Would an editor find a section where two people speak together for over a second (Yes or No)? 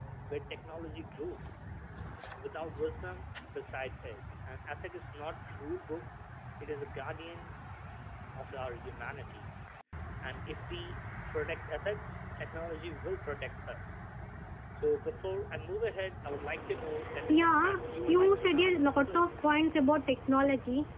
Yes